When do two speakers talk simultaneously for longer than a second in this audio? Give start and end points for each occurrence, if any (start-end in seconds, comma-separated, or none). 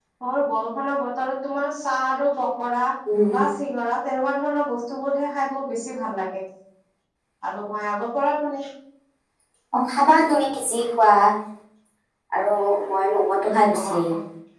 none